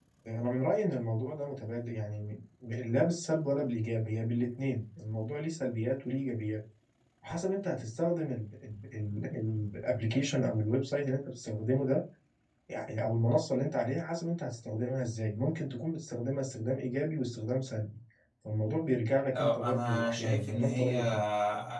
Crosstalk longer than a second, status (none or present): present